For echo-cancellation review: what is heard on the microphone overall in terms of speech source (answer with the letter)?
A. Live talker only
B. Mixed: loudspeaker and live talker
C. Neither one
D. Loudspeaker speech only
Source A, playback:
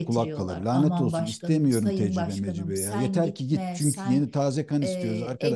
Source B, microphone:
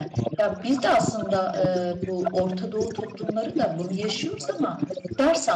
B